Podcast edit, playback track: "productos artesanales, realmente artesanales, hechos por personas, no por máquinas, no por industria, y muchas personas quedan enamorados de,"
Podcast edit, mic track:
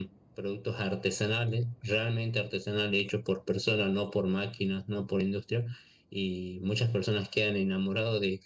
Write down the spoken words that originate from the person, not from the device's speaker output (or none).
none